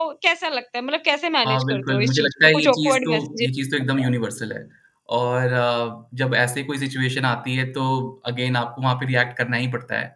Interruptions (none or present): present